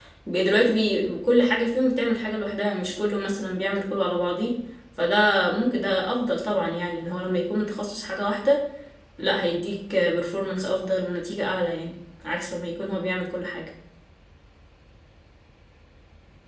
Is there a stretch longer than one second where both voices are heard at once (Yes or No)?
No